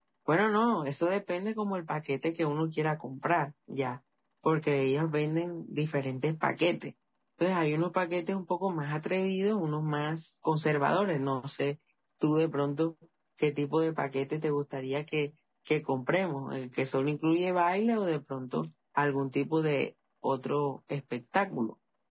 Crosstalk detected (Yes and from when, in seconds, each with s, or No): No